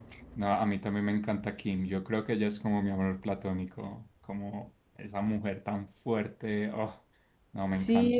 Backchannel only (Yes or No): No